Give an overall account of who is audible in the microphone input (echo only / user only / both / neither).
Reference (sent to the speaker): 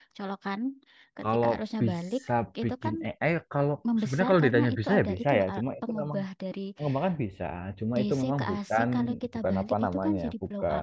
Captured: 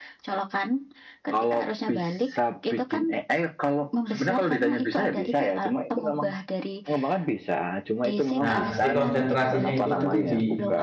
both